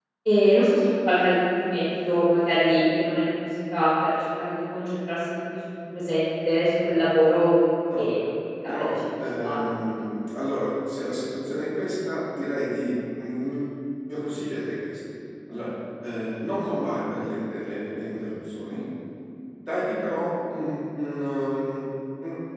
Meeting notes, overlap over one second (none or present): present